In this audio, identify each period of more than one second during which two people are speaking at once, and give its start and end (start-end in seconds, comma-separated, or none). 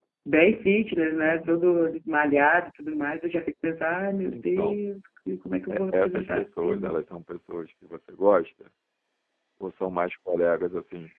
5.7-7.0